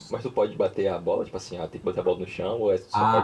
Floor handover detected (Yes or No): Yes